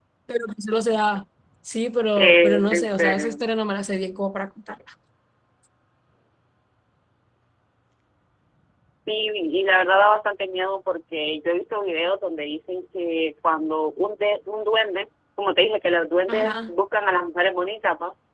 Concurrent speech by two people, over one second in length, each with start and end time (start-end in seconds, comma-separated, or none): 2.2-3.4